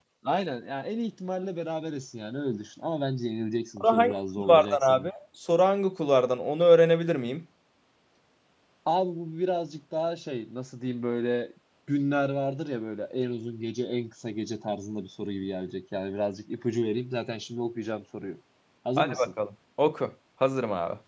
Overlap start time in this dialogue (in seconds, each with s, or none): 3.8 s